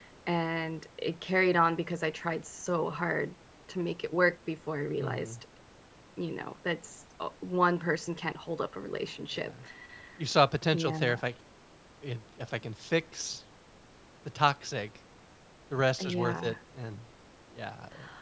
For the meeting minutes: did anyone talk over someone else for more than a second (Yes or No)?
No